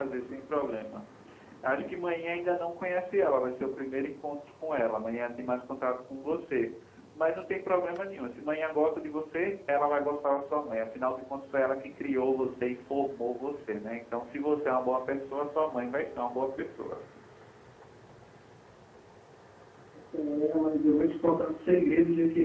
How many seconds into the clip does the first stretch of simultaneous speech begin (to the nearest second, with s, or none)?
none